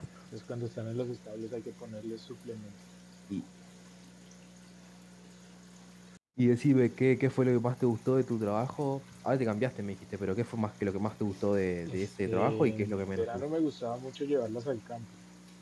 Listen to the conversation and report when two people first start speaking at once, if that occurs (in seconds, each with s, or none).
11.9 s